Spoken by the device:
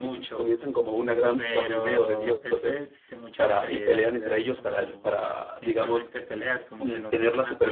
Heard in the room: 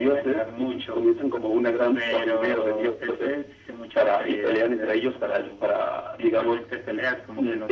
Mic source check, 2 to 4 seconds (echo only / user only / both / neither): echo only